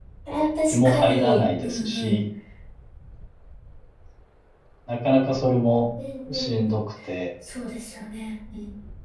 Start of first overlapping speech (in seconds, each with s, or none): 0.7 s